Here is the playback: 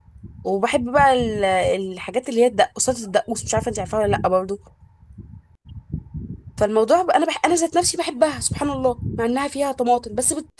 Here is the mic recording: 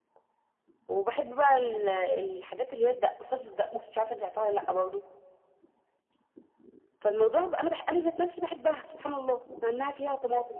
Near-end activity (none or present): none